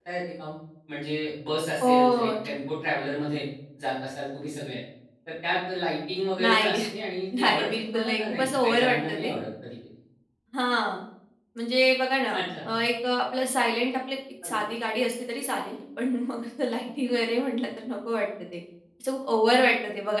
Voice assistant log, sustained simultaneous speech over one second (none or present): present